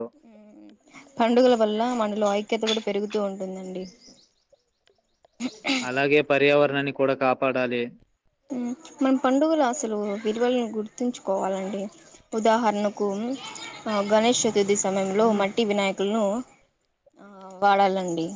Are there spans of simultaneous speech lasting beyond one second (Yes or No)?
No